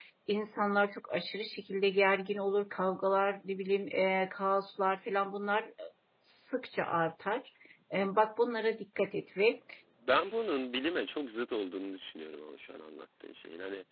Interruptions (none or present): none